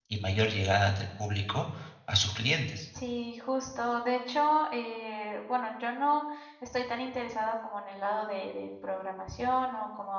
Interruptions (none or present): none